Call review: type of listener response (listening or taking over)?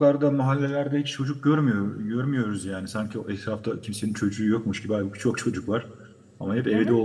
listening